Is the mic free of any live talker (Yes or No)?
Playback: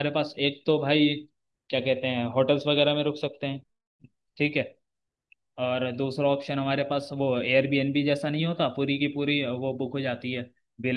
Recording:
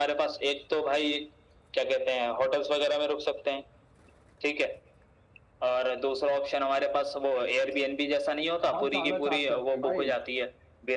No